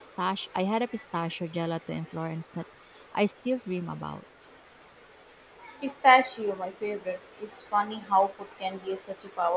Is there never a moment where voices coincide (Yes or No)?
Yes